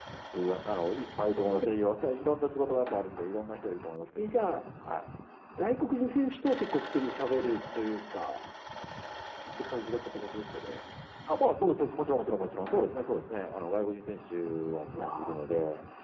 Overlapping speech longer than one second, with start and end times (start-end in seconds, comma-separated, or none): none